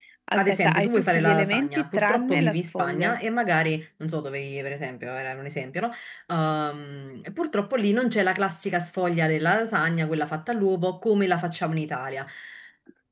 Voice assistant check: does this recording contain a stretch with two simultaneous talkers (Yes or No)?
Yes